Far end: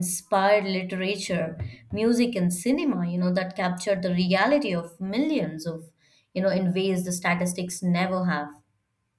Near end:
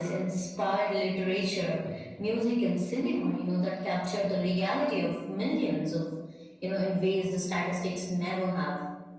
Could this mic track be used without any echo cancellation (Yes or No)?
No